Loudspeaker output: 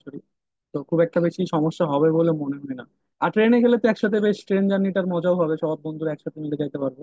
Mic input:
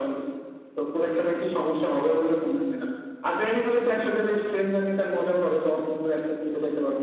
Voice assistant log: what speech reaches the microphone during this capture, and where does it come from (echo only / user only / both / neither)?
echo only